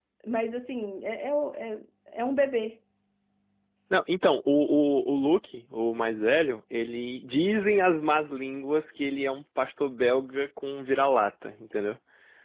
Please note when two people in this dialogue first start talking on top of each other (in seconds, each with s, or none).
none